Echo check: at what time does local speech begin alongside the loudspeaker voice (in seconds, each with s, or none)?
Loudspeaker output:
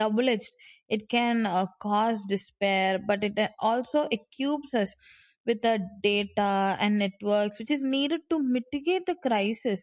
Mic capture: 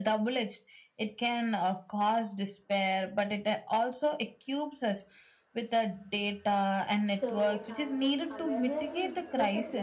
7.1 s